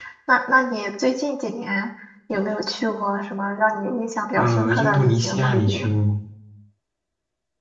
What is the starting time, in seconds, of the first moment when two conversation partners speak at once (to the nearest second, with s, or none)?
4 s